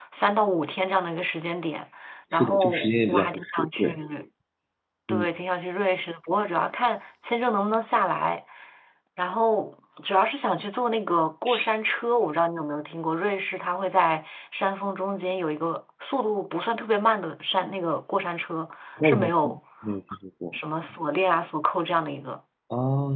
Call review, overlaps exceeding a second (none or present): present